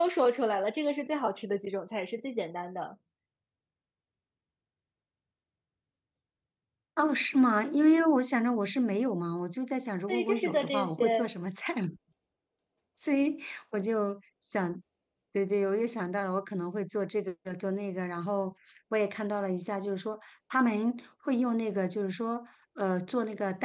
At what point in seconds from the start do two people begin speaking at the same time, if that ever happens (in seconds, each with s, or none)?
10.1 s